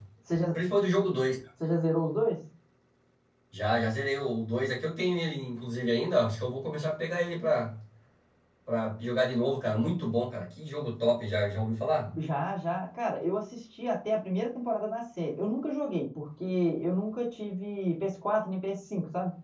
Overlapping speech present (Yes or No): No